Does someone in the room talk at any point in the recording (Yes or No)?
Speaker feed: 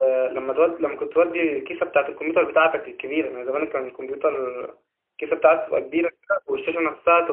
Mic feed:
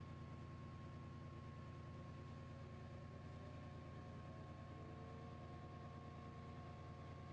No